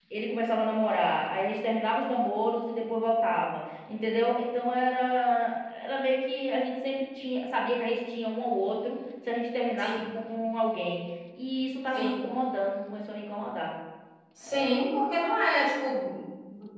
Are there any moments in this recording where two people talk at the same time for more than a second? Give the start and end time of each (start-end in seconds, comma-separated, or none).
none